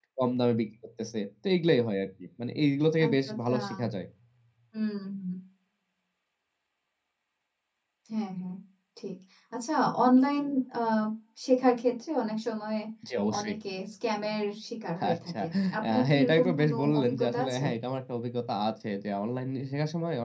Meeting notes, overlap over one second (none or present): present